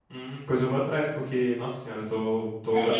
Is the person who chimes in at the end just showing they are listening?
No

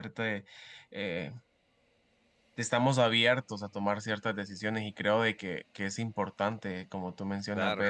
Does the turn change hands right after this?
No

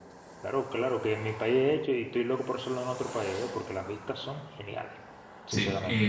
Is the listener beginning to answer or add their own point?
Yes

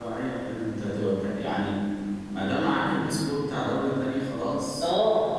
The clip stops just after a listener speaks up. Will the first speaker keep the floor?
No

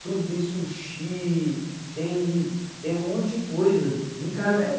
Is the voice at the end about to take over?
Yes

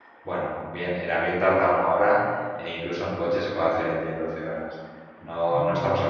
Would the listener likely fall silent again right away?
Yes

